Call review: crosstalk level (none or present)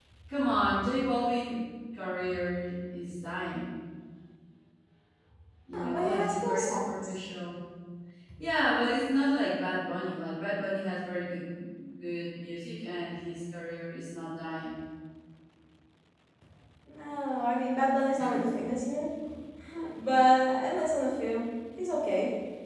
present